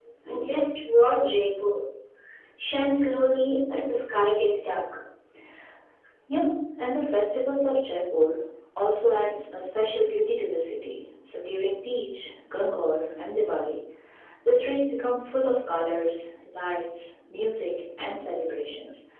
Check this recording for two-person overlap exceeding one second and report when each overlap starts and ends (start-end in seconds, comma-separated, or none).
none